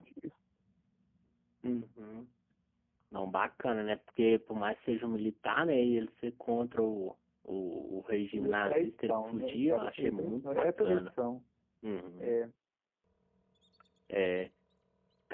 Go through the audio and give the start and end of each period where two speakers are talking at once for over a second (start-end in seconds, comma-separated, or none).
8.3-11.0